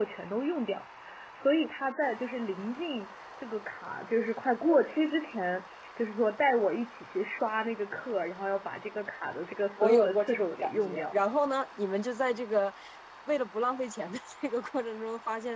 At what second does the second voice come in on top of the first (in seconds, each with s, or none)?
9.8 s